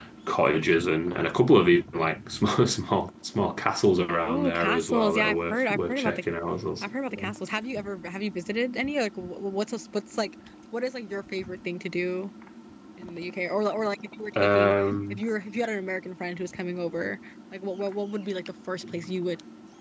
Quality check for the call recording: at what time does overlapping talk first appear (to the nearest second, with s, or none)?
4 s